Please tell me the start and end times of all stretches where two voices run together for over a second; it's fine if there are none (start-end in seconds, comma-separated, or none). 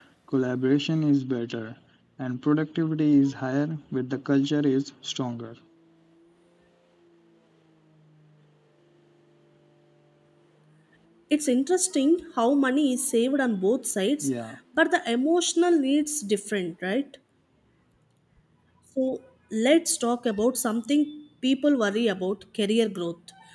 none